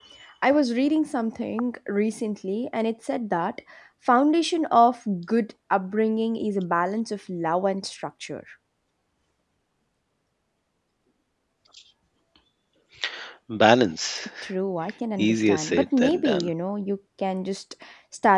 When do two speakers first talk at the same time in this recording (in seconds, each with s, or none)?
15.2 s